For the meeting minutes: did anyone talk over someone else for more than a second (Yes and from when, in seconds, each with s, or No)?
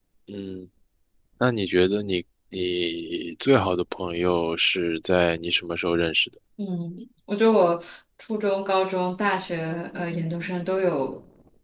No